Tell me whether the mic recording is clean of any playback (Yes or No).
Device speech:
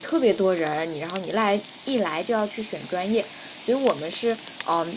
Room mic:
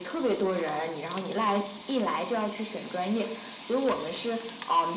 No